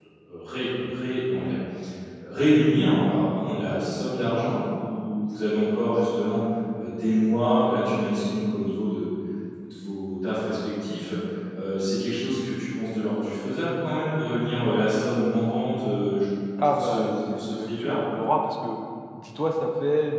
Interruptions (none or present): present